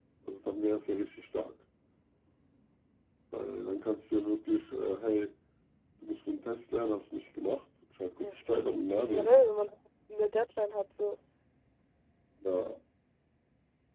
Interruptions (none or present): present